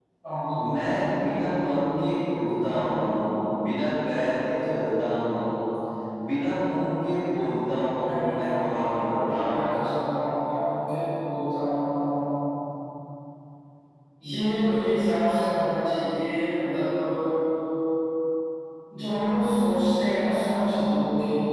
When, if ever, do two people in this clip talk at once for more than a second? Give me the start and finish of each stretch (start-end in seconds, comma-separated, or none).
8.0-9.6